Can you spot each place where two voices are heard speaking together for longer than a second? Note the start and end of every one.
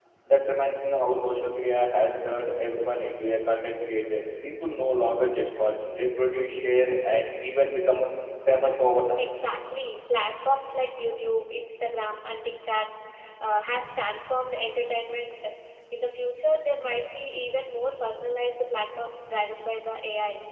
none

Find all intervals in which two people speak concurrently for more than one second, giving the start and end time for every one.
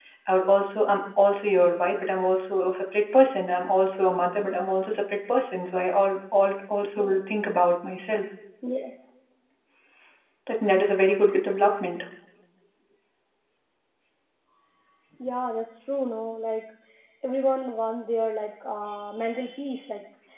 none

